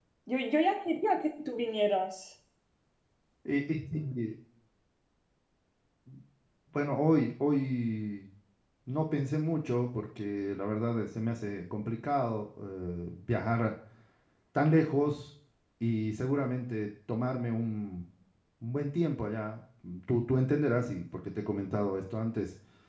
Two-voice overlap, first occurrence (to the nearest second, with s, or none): none